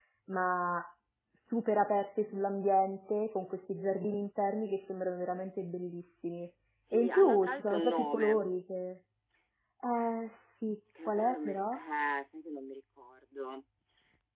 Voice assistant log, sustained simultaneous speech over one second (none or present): present